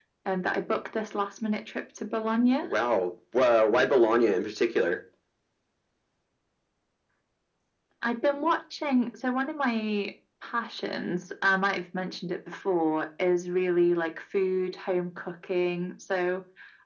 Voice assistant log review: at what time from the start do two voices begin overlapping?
none

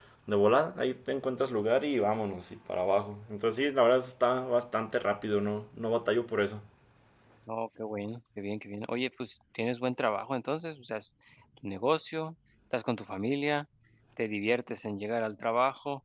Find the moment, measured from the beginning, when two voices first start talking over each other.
none

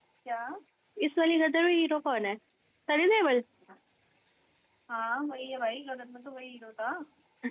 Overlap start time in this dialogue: none

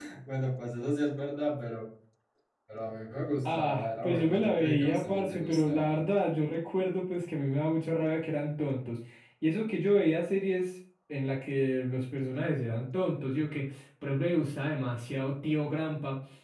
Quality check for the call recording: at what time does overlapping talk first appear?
3.4 s

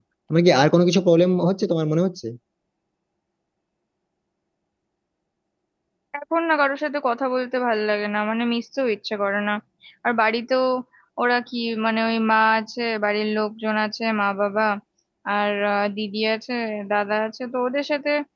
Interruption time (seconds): none

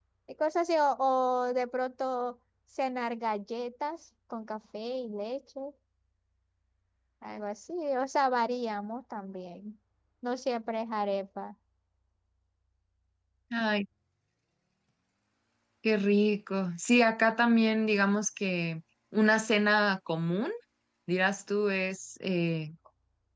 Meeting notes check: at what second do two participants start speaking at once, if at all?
none

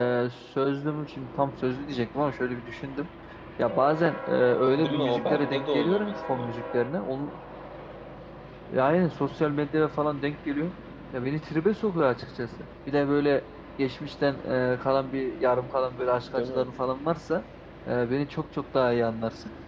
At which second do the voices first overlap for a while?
4.8 s

